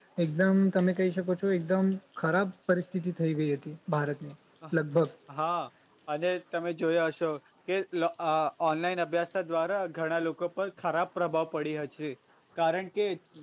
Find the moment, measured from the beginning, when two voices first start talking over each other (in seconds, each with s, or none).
none